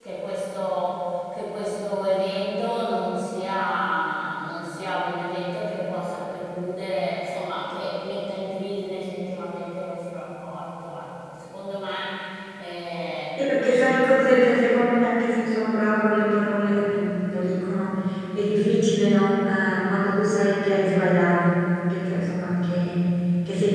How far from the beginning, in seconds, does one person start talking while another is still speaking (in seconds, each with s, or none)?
none